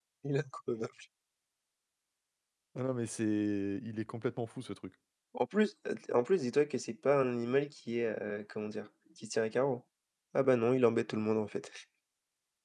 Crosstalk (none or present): none